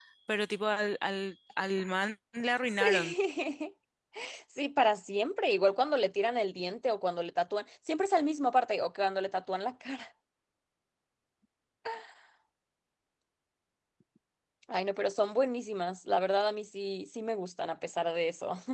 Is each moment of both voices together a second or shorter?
Yes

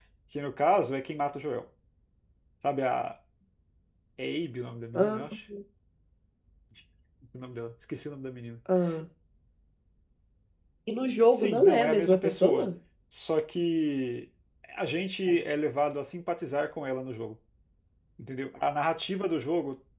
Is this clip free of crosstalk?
No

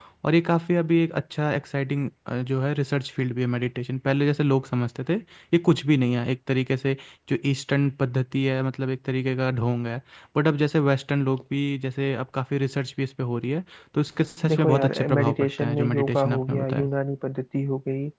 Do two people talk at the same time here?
Yes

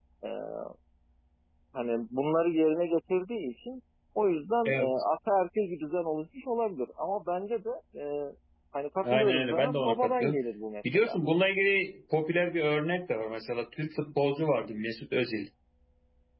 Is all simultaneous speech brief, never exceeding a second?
No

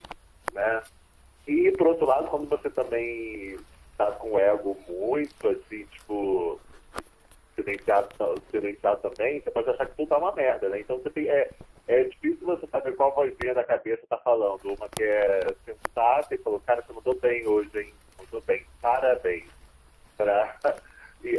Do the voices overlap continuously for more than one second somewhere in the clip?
No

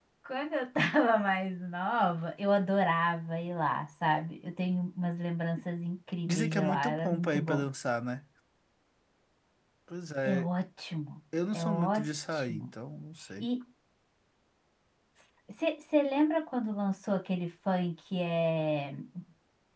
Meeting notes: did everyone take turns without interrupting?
No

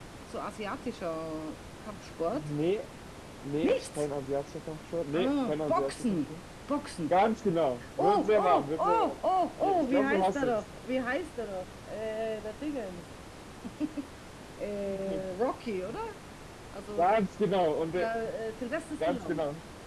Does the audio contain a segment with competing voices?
Yes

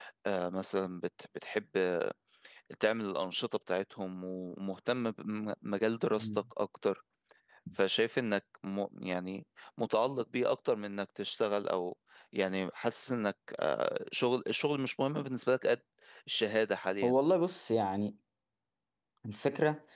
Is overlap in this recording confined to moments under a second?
Yes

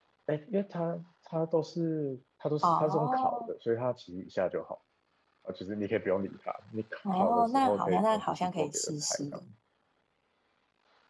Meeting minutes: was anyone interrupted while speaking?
Yes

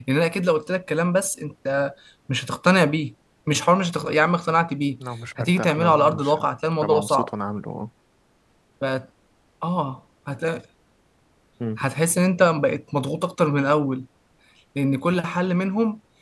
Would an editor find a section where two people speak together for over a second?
Yes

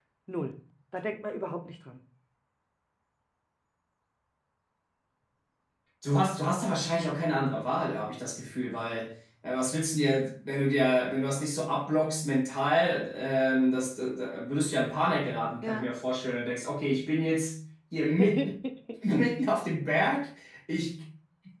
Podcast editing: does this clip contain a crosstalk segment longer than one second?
No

